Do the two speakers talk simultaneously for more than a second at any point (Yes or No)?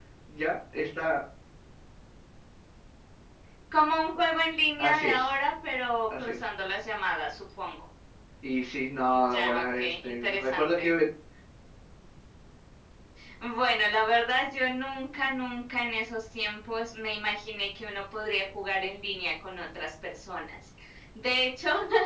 Yes